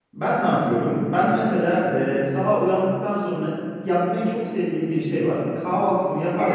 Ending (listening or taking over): listening